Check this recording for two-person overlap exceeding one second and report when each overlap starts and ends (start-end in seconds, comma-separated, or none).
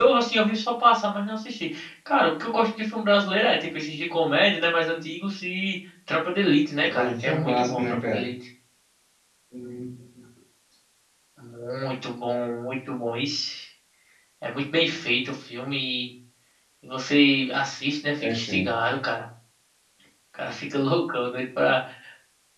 6.8-8.2